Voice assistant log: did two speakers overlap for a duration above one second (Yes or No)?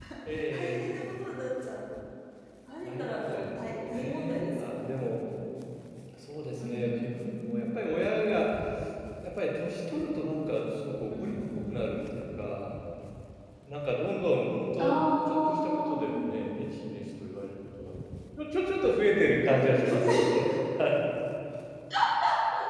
Yes